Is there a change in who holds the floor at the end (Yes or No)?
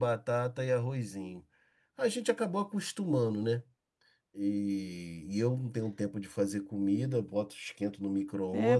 Yes